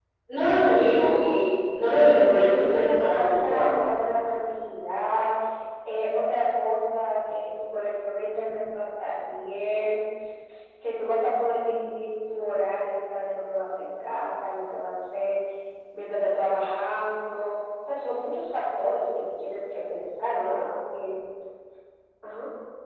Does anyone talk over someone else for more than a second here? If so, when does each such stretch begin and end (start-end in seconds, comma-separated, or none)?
2.4-3.8